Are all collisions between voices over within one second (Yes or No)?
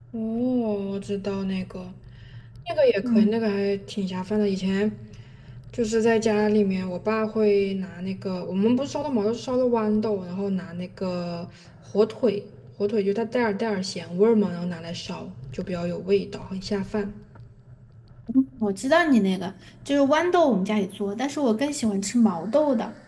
Yes